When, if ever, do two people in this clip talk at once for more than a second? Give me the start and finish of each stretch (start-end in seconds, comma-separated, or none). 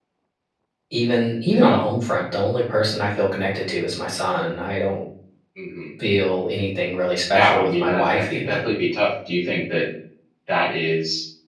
7.3-8.7